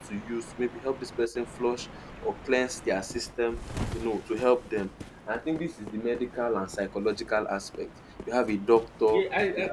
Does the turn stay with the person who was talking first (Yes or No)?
No